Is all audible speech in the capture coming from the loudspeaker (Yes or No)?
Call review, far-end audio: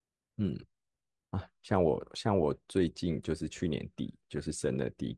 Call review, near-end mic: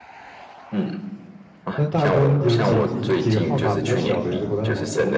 No